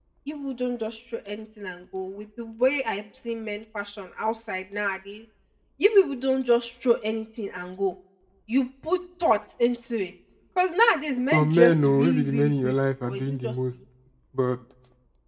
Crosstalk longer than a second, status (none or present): present